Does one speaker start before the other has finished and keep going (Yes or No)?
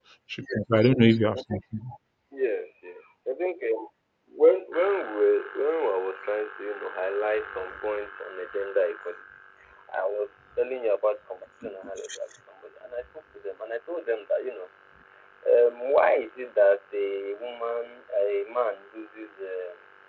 No